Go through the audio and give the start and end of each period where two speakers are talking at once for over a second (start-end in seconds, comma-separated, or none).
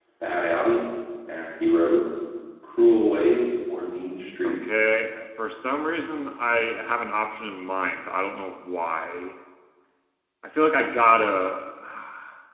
none